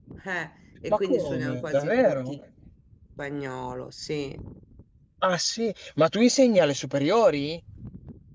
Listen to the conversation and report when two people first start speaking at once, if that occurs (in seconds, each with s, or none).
0.9 s